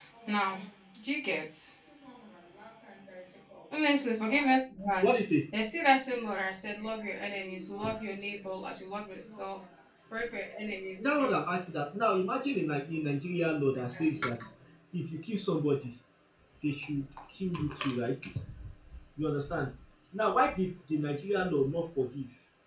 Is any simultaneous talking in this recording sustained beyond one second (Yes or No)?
No